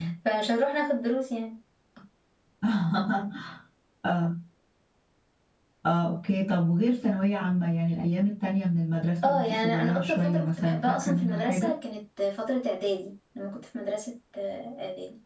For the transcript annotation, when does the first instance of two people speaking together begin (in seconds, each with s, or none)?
9.2 s